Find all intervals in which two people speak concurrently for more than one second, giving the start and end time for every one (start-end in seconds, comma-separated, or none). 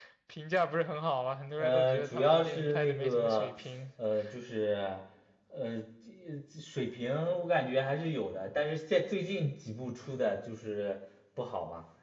1.6-3.5